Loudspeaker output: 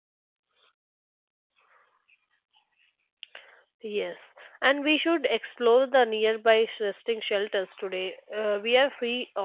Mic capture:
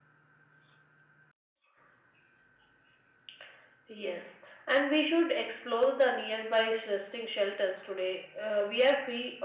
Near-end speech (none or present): none